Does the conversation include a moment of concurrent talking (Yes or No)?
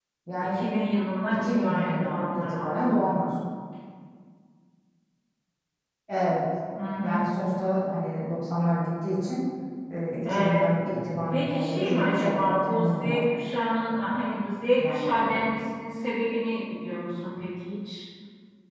Yes